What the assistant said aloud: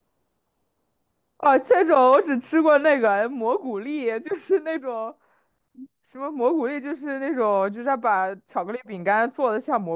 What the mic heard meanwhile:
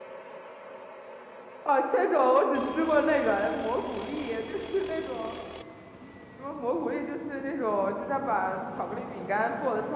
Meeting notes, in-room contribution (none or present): none